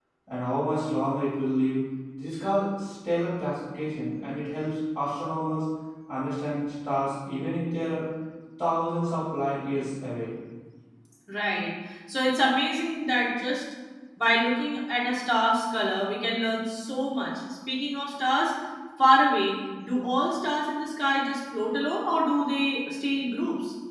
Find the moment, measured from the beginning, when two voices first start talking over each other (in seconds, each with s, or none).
none